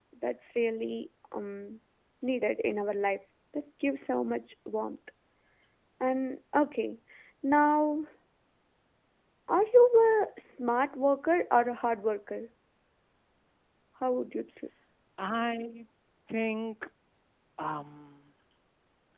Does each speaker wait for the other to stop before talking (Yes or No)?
Yes